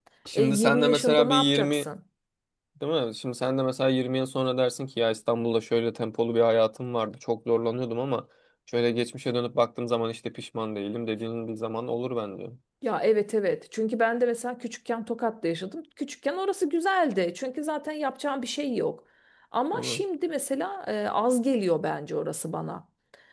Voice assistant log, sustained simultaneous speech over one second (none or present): present